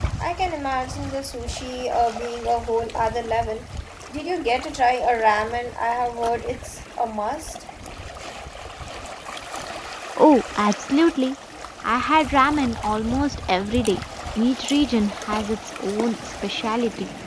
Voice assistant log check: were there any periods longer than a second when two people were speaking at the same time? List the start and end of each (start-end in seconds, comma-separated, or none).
none